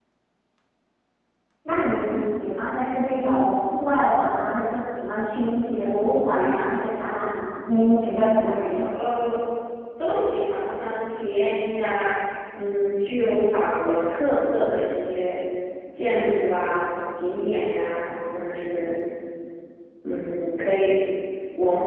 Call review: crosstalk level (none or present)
none